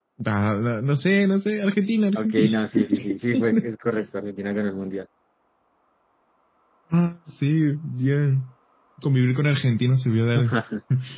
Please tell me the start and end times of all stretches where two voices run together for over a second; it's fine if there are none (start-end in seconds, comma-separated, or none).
2.2-3.7